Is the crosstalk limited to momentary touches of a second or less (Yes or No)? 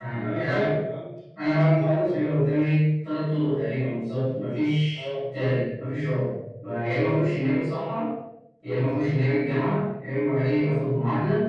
Yes